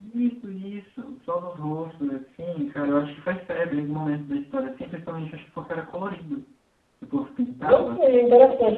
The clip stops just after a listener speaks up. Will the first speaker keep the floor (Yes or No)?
No